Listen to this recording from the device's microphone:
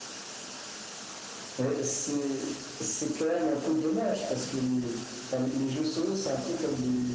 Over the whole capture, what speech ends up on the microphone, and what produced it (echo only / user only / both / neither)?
echo only